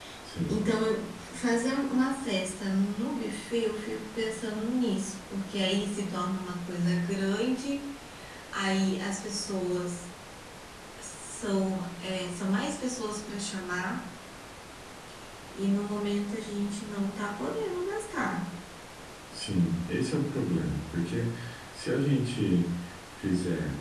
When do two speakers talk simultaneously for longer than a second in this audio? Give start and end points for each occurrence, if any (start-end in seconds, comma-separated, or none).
none